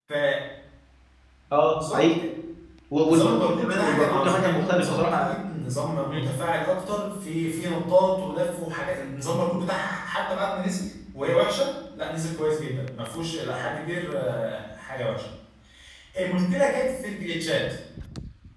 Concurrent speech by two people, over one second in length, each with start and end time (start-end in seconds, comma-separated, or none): 3.0-5.3